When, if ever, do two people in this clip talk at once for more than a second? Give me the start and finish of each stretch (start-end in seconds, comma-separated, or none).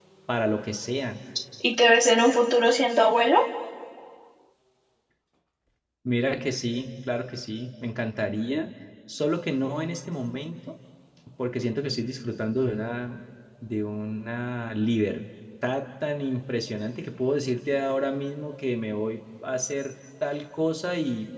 none